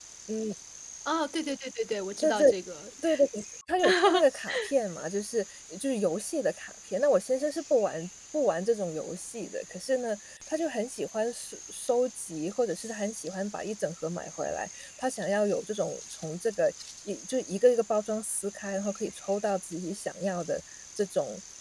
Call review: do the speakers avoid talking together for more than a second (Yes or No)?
Yes